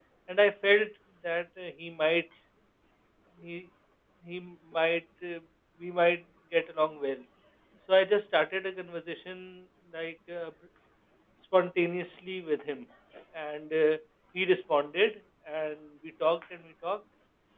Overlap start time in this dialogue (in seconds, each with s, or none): none